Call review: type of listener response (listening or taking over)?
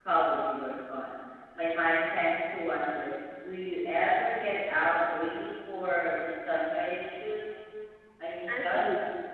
taking over